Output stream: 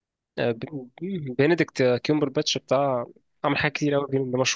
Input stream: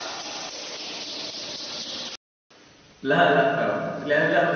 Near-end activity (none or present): present